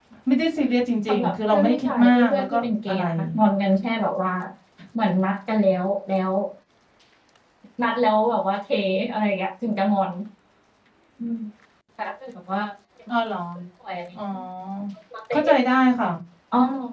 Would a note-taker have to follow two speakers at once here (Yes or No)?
Yes